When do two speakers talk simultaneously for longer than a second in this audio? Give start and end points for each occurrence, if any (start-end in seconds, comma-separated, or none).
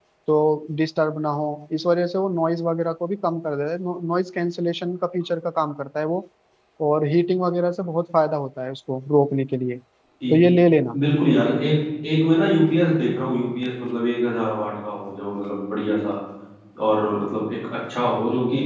none